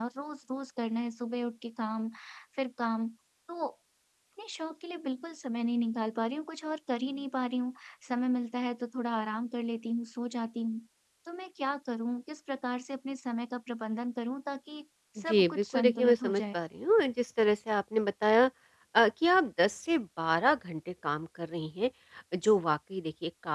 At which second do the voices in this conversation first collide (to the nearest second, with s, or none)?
15 s